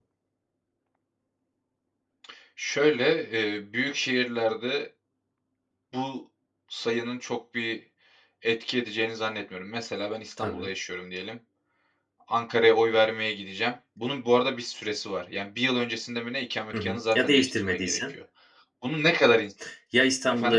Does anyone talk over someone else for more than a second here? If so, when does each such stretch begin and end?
16.7-18.1

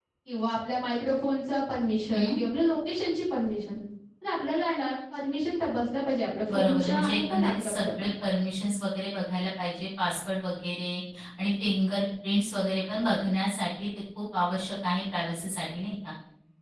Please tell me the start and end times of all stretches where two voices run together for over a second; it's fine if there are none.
6.5-8.1

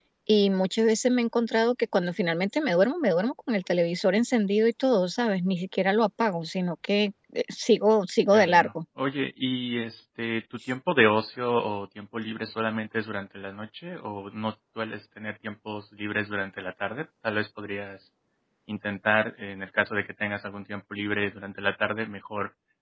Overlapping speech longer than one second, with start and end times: none

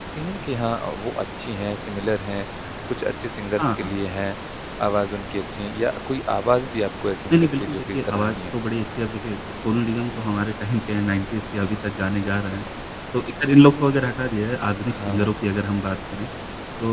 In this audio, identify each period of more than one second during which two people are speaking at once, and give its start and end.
7.3-8.6

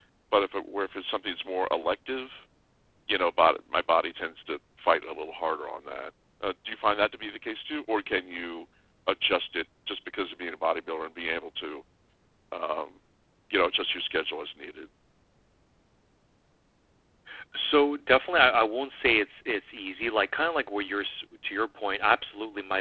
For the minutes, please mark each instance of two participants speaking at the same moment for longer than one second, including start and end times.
none

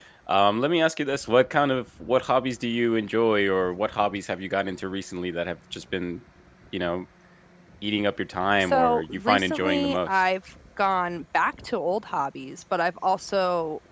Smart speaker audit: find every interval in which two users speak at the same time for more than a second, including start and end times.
8.6-10.2

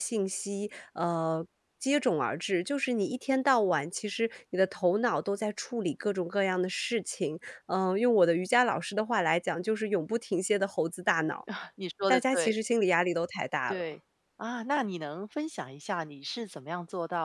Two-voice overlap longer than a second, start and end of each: none

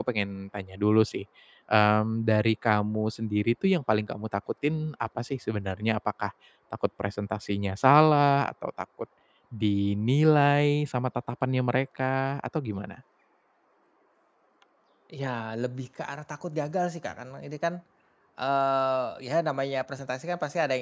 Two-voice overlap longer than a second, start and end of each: none

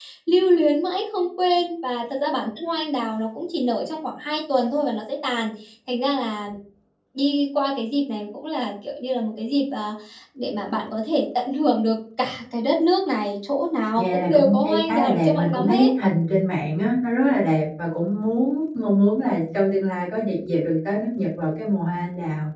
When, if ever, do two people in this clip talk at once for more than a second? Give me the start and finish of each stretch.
13.9-15.9

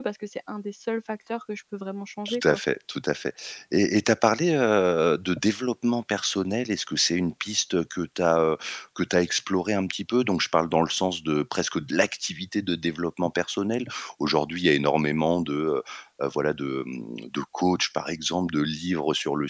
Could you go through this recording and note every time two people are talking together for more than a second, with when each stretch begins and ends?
none

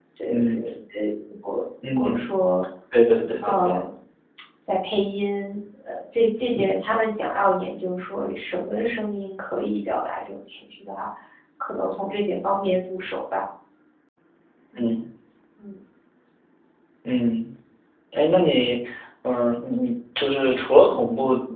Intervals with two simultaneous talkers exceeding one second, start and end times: none

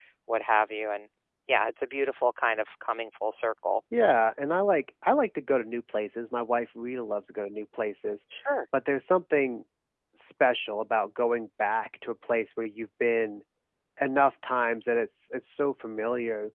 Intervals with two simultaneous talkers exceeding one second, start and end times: none

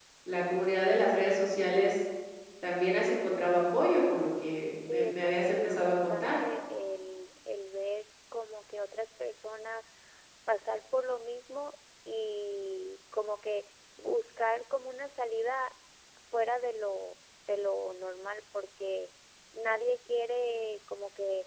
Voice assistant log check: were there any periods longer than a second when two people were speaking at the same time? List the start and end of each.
4.9-6.4

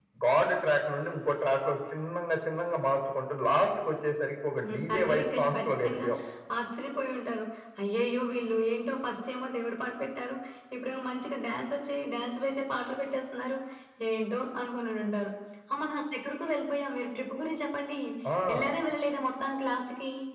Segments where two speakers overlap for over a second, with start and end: 4.6-6.0

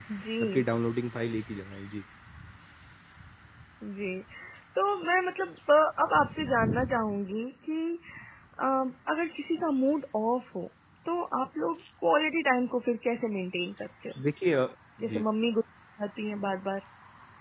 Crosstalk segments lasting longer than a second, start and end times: none

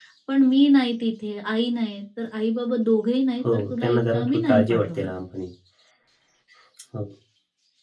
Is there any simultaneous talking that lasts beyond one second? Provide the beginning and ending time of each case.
3.5-5.1

